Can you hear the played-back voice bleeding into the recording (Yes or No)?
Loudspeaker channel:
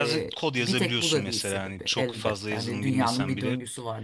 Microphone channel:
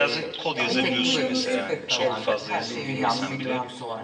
Yes